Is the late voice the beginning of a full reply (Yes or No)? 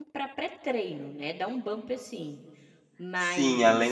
Yes